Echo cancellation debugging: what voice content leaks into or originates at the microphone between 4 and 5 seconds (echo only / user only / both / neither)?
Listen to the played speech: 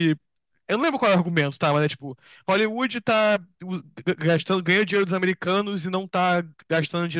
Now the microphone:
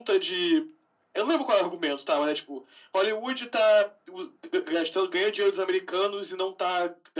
echo only